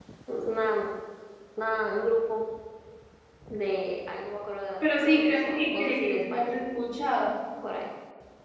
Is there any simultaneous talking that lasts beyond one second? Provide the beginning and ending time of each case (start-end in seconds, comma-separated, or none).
5.0-6.6